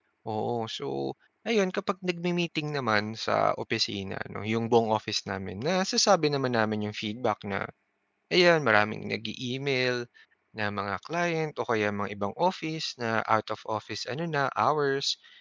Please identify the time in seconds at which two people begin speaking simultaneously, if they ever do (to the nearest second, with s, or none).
none